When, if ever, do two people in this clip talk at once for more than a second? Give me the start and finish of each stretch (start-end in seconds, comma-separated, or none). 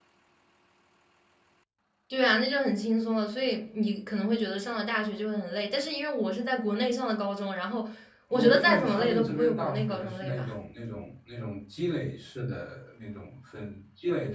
8.3-10.5